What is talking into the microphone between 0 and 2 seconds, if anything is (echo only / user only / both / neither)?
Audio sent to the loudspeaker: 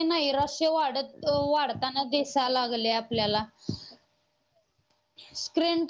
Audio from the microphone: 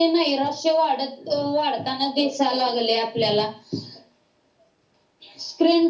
echo only